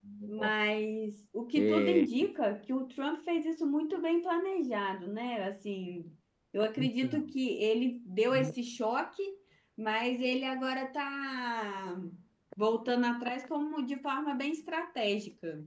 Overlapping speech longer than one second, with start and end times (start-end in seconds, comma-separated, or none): none